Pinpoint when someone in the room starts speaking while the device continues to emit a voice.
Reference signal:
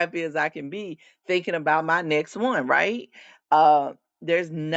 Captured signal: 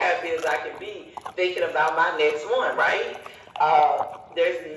none

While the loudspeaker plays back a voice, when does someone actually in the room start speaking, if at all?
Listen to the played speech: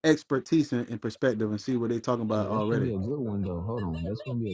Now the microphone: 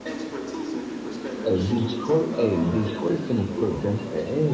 1.4 s

